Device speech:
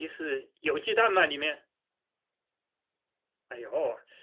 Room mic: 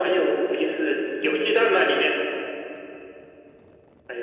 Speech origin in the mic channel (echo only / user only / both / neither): echo only